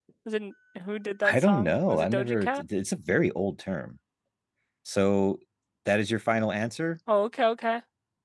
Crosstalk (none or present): present